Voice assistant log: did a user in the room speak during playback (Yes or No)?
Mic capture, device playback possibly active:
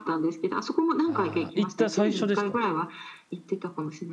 Yes